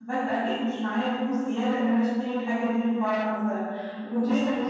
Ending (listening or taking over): listening